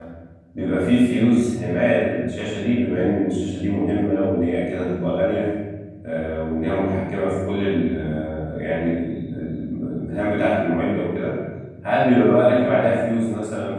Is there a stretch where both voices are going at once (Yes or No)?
No